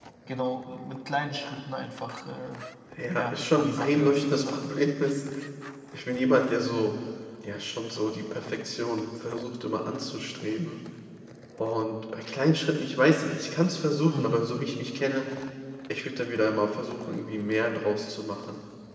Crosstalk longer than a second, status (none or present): present